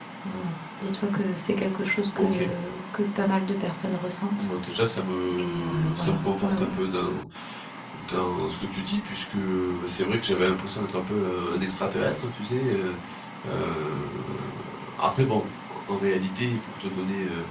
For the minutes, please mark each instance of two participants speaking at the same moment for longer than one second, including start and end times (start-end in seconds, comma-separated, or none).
5.4-6.8